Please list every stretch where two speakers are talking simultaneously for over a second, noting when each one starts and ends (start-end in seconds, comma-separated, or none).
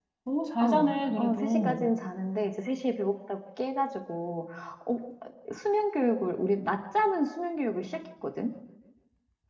0.6-1.8